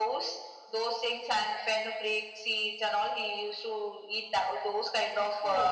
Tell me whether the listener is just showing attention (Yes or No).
Yes